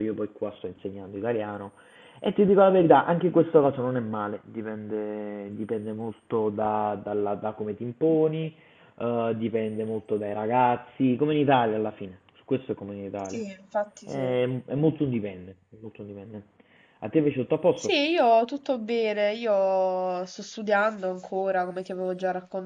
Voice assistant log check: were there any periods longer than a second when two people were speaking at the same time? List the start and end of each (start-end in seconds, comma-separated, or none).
none